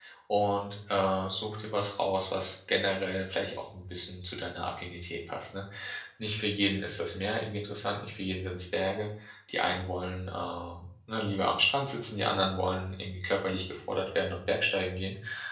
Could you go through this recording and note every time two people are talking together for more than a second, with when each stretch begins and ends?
none

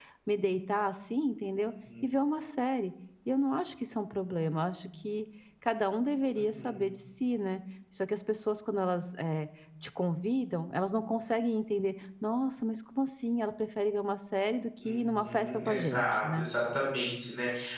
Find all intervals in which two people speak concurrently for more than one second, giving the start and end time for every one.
14.8-16.5

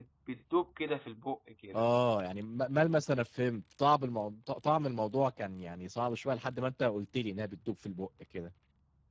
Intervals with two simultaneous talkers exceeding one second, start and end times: none

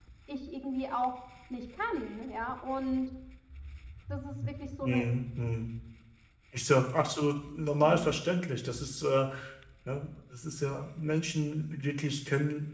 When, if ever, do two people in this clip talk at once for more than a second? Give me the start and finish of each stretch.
none

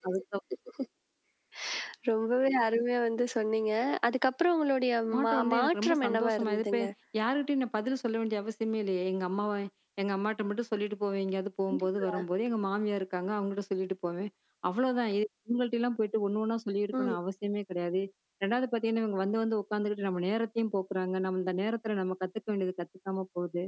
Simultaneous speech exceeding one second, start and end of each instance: 5.1-6.8

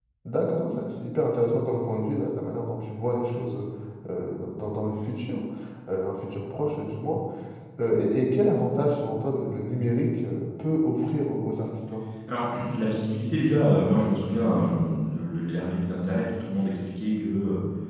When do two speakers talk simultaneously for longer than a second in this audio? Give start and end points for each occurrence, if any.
none

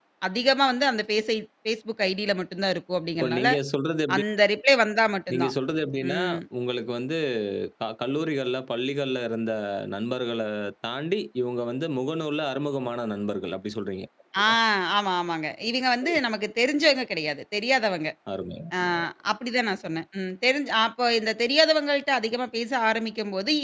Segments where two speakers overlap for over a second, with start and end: none

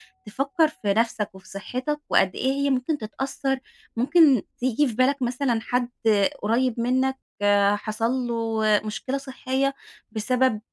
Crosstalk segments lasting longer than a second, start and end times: none

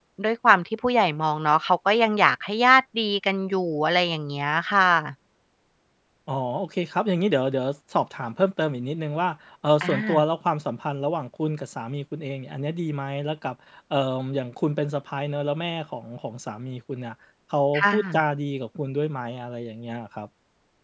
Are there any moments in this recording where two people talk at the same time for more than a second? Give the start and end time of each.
none

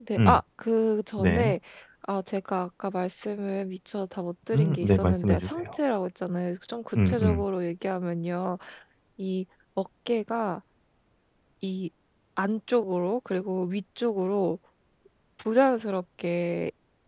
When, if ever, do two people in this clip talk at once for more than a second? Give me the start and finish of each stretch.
4.5-5.8

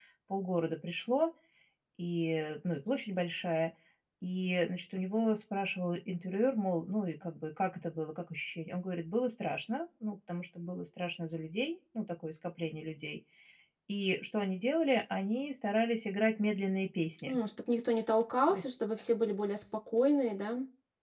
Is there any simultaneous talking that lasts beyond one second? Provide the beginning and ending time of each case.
none

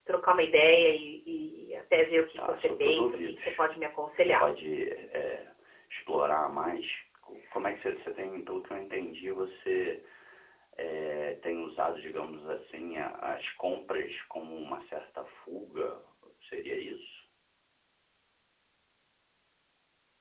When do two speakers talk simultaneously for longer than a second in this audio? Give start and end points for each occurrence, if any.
2.4-3.6

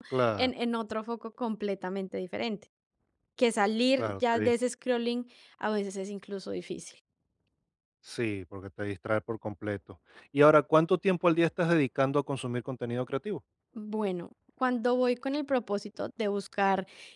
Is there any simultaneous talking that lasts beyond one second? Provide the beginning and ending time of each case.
none

